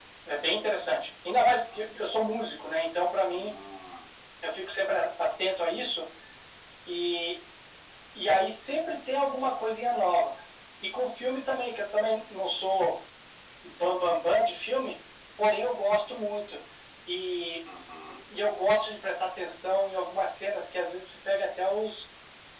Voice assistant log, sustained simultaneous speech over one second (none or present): none